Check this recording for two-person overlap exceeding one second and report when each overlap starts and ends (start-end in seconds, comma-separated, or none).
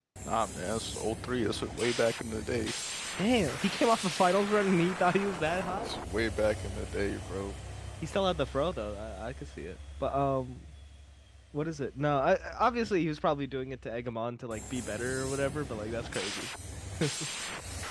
none